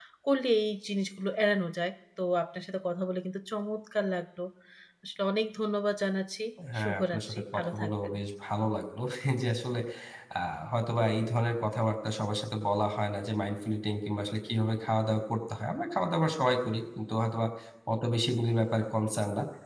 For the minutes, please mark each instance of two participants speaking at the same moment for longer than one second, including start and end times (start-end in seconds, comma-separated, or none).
6.8-8.1